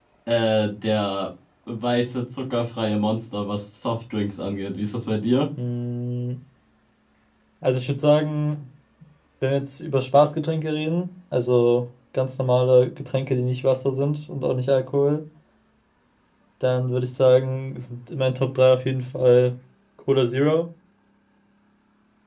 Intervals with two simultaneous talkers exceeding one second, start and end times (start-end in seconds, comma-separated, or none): none